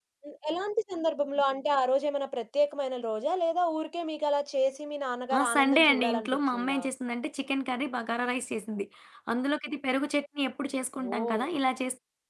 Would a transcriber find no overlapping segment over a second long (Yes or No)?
No